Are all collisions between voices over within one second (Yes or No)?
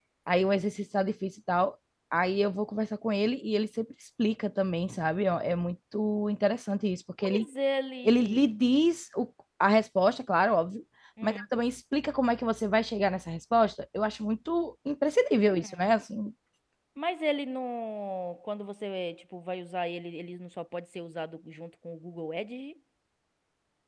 Yes